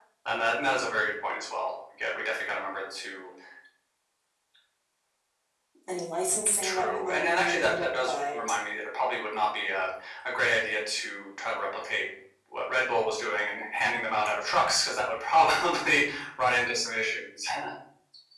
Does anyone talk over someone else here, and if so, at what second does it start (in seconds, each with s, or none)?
6.6 s